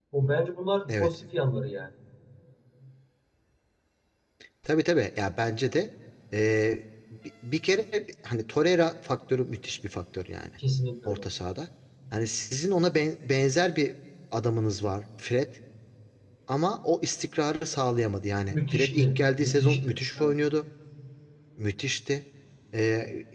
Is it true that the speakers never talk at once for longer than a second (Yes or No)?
No